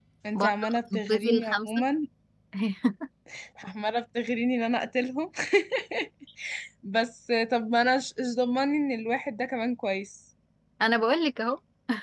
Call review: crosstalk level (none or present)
present